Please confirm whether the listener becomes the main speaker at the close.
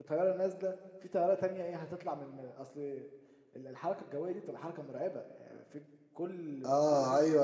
Yes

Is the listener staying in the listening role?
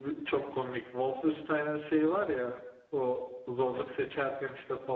Yes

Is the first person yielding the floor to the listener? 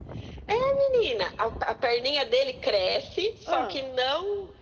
No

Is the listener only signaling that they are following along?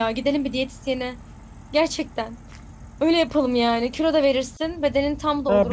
No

